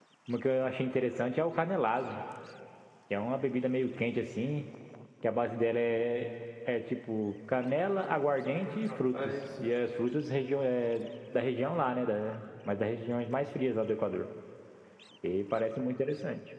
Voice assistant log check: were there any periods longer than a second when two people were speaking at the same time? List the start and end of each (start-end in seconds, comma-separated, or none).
7.5-9.3